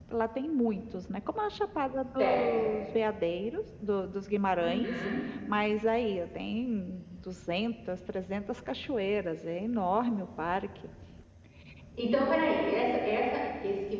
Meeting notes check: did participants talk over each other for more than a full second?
No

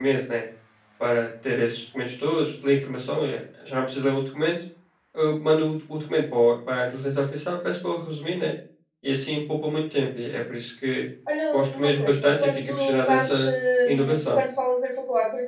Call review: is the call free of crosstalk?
No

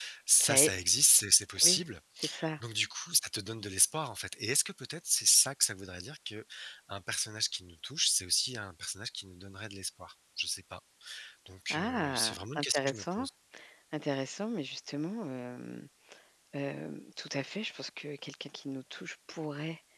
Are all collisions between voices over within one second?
No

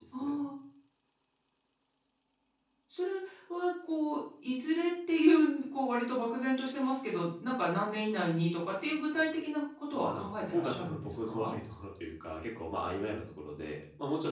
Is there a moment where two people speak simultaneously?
Yes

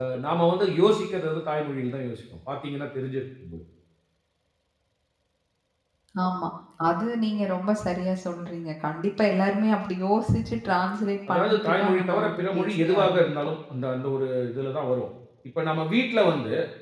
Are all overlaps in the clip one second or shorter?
No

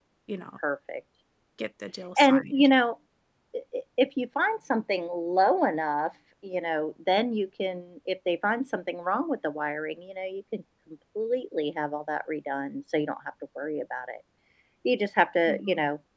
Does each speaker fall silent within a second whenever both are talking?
Yes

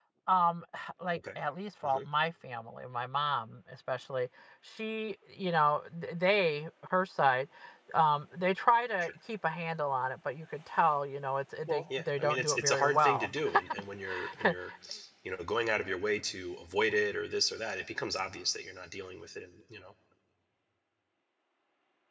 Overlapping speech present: Yes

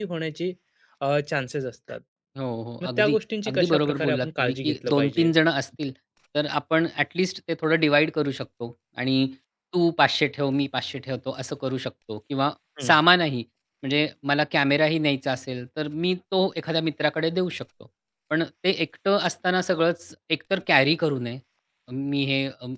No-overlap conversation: No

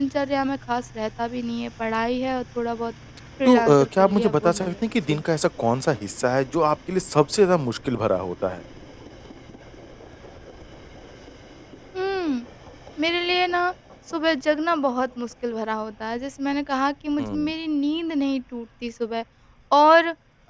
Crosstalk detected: Yes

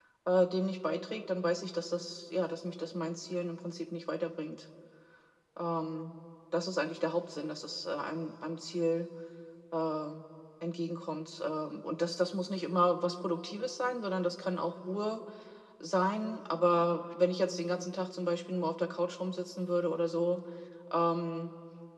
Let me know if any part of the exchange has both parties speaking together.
No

